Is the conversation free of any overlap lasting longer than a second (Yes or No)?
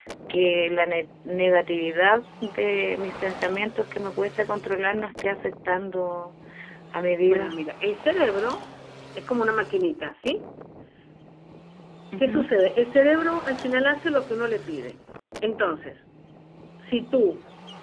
Yes